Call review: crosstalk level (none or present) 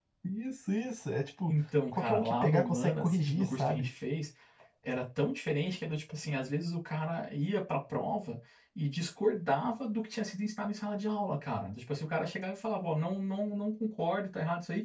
present